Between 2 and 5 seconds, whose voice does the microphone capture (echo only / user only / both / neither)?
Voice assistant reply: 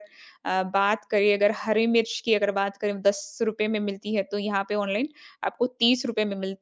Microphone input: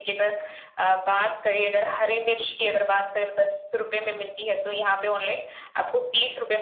echo only